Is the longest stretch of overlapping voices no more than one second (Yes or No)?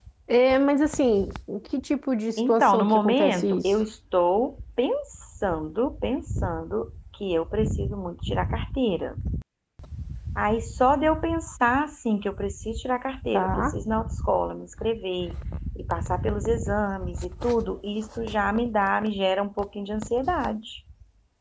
No